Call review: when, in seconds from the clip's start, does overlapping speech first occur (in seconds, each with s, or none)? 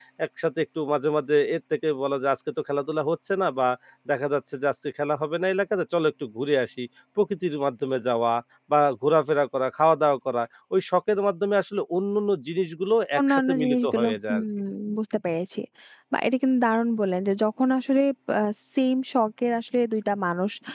13.2 s